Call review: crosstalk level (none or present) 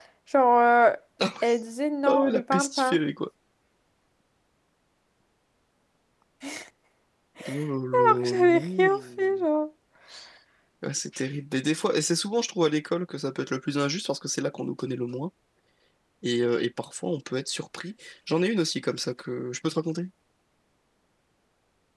present